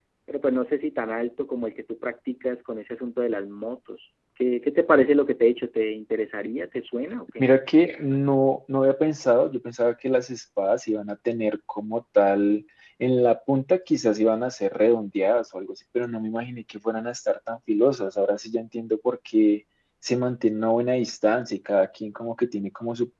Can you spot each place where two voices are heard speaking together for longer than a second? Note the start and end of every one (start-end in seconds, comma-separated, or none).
none